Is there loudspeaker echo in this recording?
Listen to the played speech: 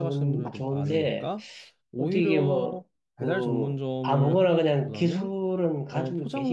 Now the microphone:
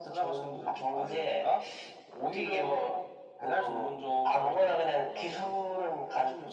Yes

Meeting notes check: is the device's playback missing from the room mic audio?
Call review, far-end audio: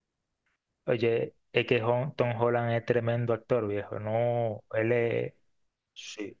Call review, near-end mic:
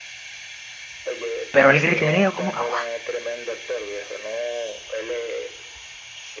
No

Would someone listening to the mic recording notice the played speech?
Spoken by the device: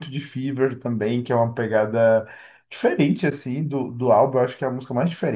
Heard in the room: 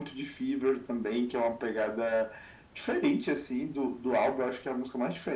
Yes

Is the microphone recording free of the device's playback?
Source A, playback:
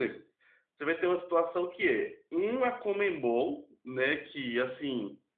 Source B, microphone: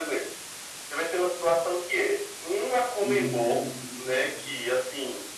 No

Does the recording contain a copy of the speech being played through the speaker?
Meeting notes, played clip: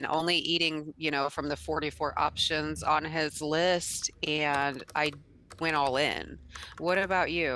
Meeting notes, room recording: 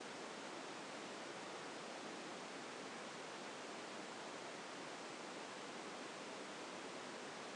No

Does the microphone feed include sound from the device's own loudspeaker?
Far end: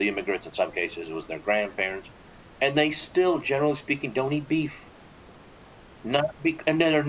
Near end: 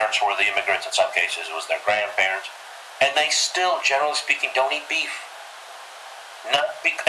Yes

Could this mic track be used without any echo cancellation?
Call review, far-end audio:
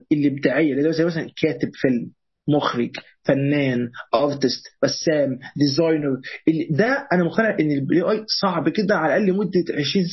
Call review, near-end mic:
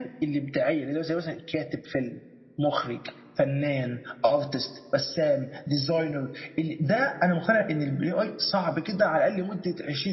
No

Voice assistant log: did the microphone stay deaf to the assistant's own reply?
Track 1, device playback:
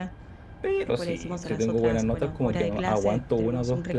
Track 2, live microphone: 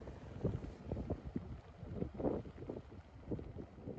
Yes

